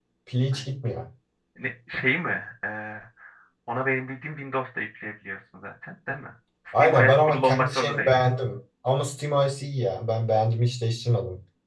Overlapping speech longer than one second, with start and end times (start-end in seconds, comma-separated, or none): 6.7-8.1